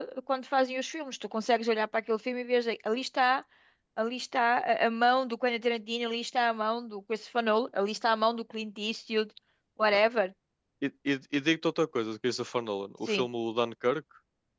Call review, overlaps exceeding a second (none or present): none